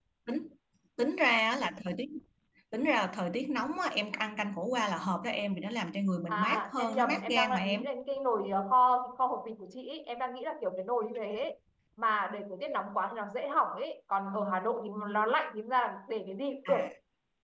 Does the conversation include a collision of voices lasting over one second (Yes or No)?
Yes